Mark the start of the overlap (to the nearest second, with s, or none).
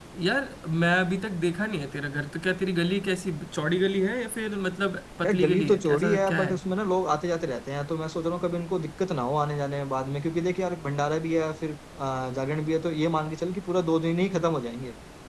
5 s